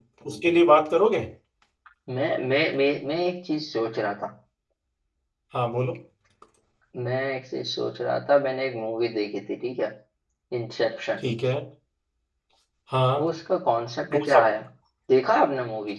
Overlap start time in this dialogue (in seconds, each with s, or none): none